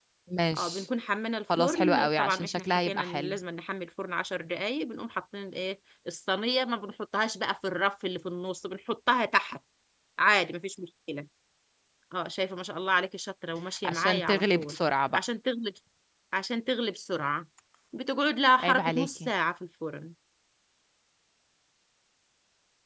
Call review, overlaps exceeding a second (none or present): present